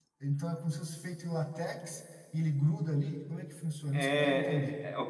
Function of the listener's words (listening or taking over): taking over